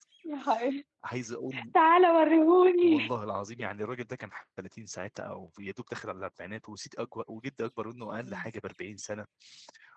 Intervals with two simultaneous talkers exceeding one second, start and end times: none

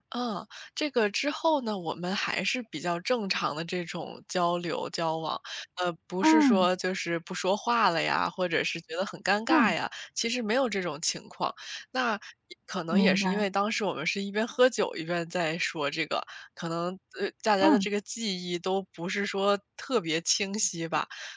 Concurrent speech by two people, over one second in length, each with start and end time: none

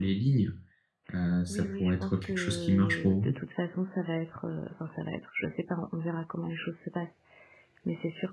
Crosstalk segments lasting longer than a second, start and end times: 1.5-3.4

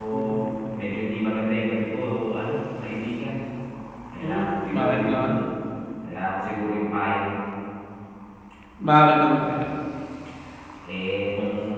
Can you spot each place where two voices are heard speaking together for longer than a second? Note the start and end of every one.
4.2-5.5

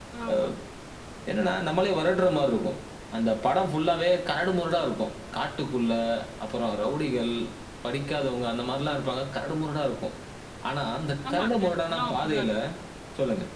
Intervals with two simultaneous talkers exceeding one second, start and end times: 11.3-12.5

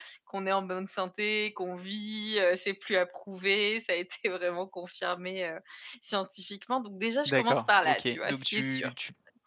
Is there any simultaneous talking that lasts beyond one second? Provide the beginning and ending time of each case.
7.3-8.9

